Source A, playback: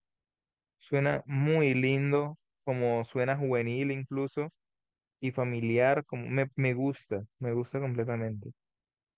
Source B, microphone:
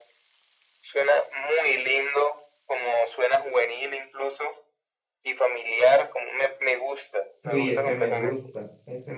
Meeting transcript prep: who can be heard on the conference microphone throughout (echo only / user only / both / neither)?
both